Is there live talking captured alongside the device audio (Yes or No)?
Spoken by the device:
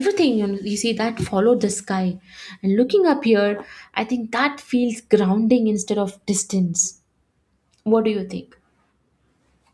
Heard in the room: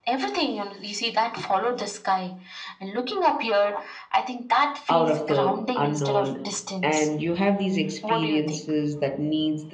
Yes